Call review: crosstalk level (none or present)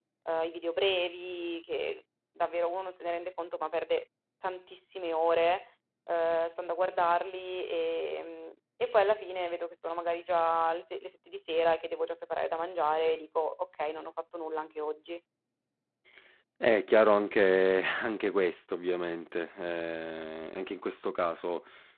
none